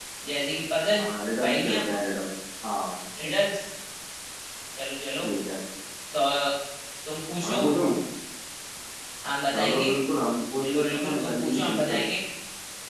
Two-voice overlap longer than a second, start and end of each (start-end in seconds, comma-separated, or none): 10.6-12.0